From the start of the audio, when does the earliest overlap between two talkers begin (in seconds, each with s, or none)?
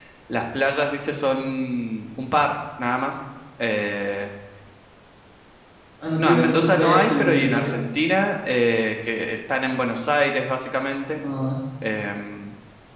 6.2 s